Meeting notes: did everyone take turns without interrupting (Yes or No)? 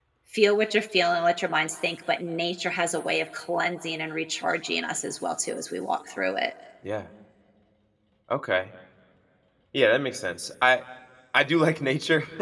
Yes